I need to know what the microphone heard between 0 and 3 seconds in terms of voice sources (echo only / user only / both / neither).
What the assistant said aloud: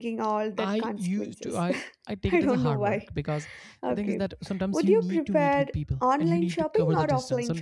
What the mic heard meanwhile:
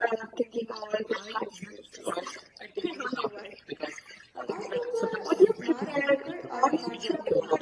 echo only